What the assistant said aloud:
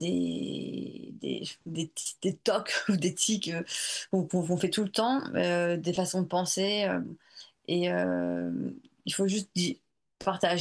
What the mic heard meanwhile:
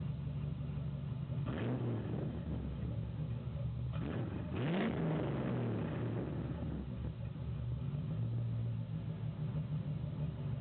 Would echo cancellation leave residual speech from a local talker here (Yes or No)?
No